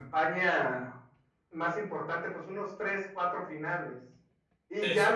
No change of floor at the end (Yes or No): Yes